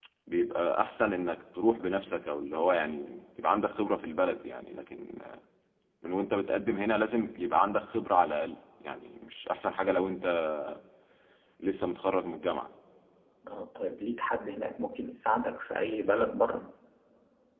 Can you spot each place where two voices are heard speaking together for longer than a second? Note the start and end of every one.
none

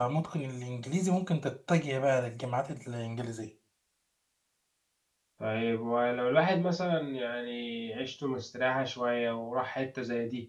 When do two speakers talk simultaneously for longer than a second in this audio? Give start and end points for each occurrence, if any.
none

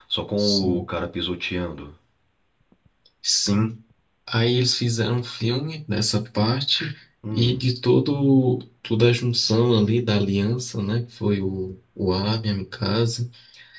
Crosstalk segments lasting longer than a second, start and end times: none

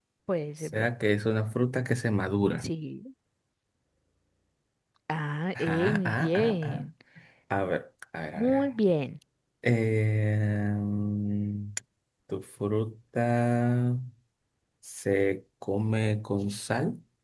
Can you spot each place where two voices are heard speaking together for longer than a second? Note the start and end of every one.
5.6-6.8

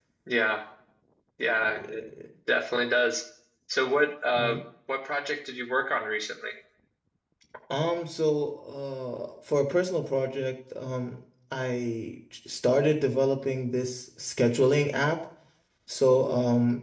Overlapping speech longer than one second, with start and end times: none

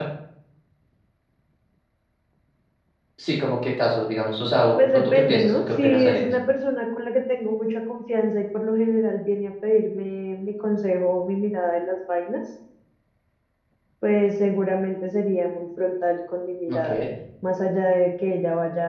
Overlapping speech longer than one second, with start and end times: 4.9-6.3

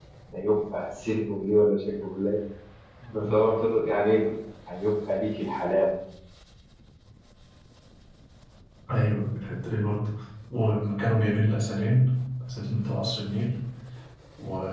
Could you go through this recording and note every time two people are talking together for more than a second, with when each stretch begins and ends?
none

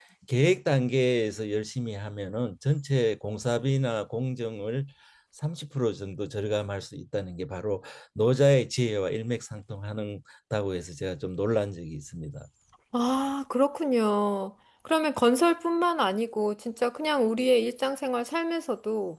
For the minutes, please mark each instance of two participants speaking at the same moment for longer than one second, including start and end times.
none

